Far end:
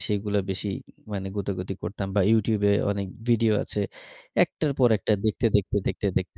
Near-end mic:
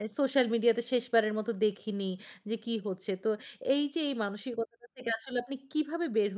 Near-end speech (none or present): present